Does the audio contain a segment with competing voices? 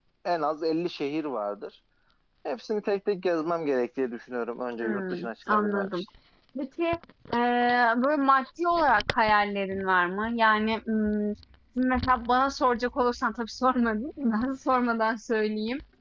Yes, from 4.8 s

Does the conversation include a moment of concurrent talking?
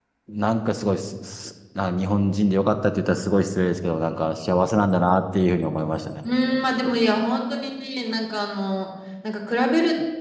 No

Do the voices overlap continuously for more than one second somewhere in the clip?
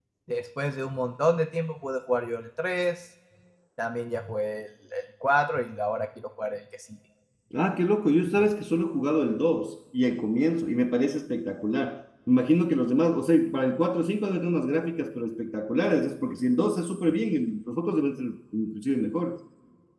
No

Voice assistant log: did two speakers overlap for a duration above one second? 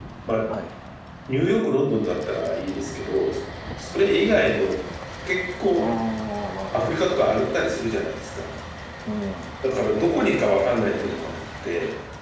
No

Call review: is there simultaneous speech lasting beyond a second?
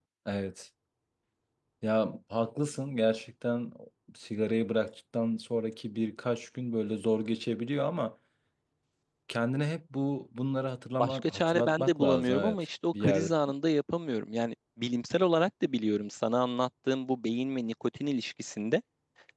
Yes, from 11.0 s

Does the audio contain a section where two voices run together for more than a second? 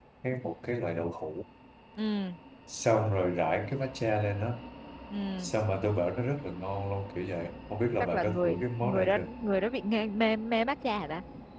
Yes, from 8.0 s

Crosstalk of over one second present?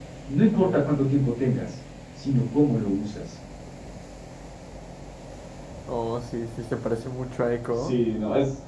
No

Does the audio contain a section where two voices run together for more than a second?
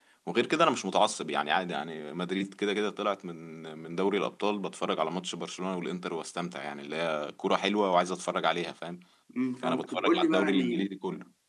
Yes, from 9.6 s

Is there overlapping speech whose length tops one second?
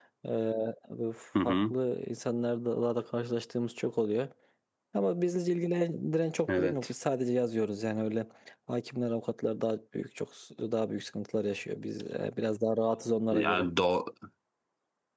No

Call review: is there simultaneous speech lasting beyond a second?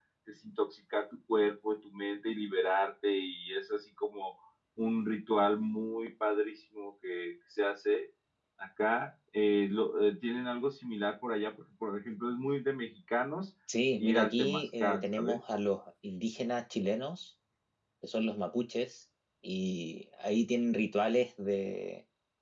Yes, from 14.0 s

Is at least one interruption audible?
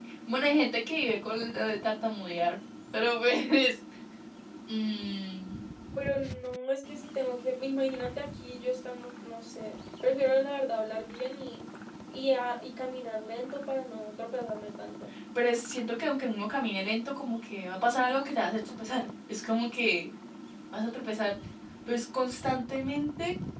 No

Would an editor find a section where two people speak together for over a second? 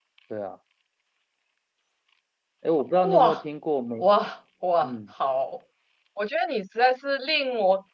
No

